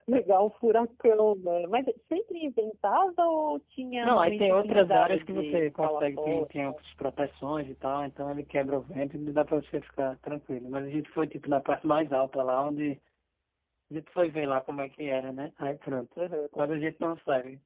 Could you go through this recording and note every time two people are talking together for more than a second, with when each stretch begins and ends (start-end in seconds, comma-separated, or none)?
4.0-6.5